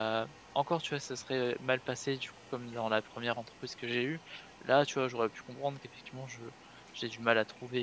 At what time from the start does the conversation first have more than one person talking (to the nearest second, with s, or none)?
none